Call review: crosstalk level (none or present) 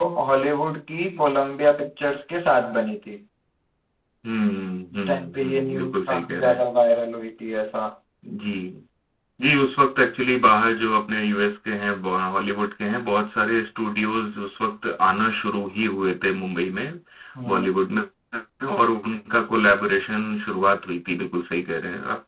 present